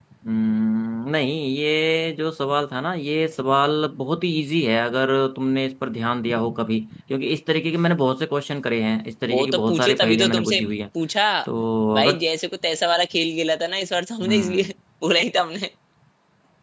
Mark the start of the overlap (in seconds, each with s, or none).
9.3 s